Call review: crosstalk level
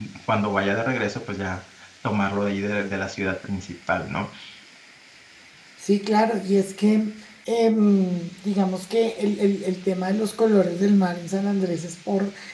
none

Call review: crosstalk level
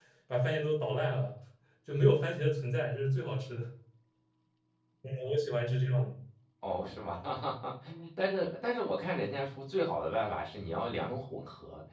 none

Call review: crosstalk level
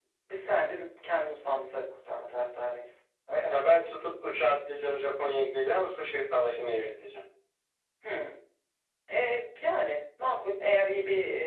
none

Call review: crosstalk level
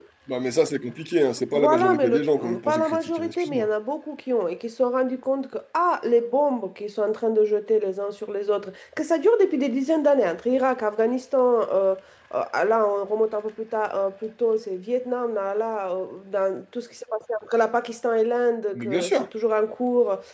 present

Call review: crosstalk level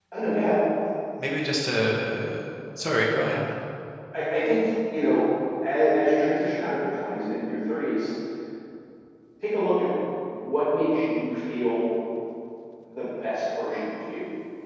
none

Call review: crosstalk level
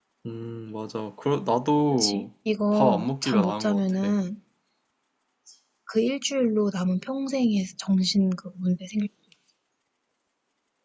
present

